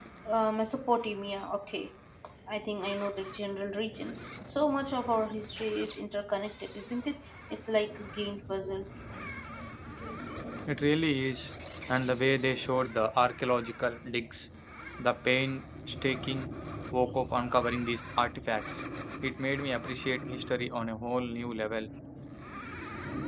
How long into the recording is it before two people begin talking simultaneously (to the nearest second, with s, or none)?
none